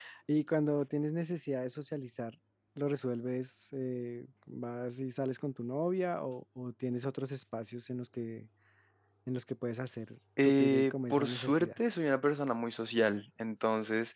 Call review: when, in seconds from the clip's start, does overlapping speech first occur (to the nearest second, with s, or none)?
10 s